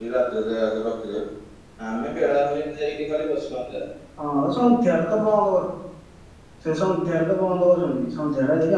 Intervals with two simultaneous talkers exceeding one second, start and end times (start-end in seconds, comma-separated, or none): none